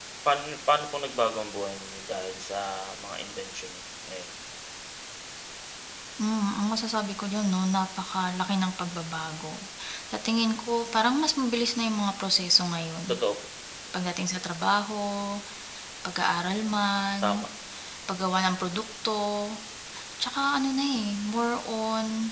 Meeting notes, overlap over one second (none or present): none